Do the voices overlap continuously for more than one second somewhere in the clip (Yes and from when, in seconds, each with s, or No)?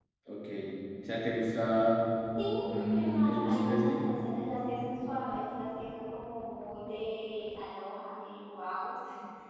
Yes, from 2.6 s